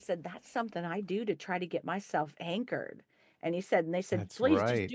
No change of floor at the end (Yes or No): Yes